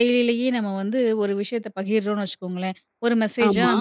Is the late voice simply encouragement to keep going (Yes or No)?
Yes